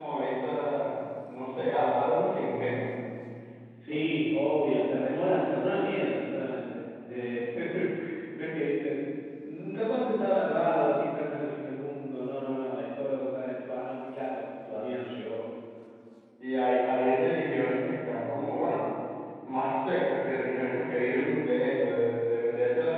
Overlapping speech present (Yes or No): No